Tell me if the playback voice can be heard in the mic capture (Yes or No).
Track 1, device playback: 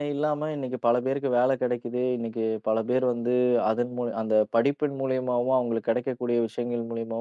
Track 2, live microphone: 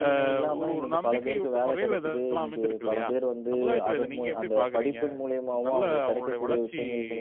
Yes